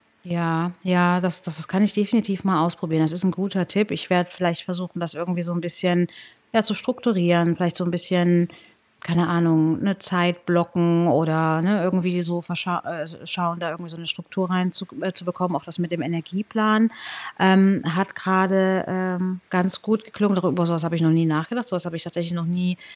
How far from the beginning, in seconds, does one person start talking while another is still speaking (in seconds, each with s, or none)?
none